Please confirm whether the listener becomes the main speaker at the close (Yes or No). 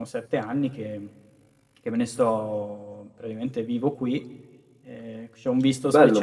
Yes